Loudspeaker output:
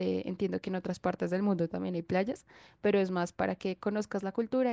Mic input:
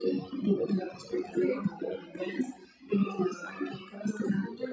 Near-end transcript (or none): Sí.